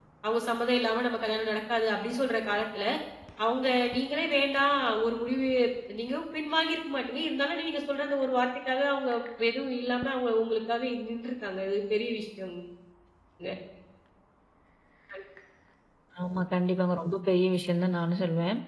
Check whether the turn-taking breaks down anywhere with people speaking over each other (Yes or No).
No